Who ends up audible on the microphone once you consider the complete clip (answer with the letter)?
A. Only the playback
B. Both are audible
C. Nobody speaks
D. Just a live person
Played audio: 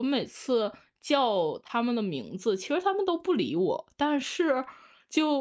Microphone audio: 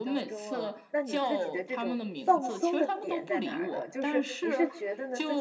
B